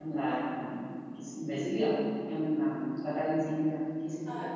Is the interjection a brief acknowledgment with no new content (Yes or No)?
No